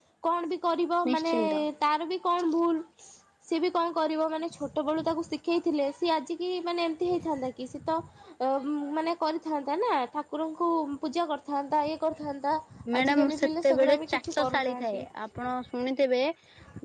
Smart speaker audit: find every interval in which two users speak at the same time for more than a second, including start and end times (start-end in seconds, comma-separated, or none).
13.0-14.9